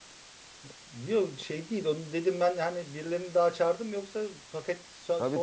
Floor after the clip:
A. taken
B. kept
A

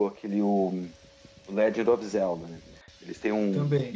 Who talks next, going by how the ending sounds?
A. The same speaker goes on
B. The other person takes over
A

